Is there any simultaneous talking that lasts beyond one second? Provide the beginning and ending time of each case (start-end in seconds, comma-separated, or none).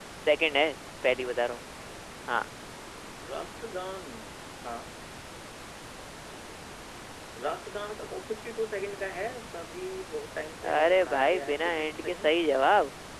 10.7-12.3